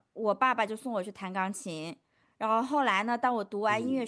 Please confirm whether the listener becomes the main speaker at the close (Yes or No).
No